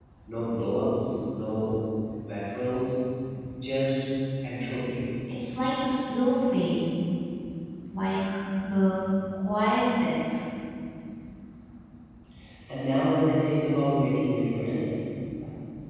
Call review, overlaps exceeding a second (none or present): none